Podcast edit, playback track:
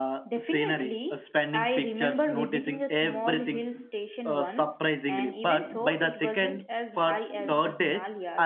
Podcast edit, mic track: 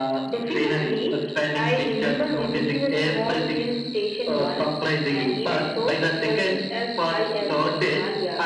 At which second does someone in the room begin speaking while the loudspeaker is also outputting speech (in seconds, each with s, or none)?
none